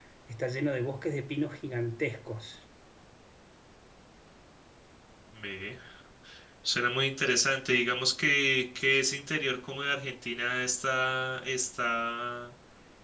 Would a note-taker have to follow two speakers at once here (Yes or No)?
No